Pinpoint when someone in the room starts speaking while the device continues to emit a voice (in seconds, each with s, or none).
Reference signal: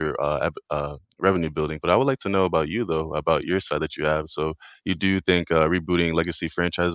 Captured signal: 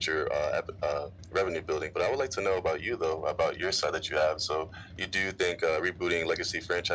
none